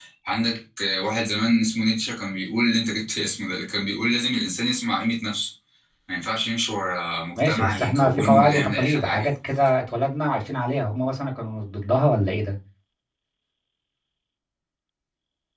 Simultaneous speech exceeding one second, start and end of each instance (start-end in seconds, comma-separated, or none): 7.4-9.3